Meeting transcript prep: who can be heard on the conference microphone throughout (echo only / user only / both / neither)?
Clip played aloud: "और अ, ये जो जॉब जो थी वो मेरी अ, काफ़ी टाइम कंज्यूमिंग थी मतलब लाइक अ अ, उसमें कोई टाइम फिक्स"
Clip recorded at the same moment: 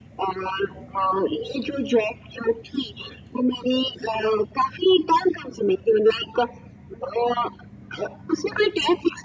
echo only